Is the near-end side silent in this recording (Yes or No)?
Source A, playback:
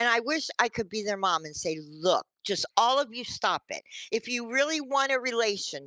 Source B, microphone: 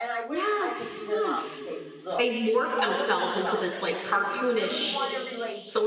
No